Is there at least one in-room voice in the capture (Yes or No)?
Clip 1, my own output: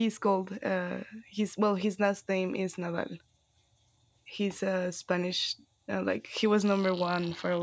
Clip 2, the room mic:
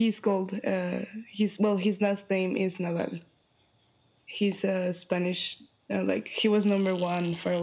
No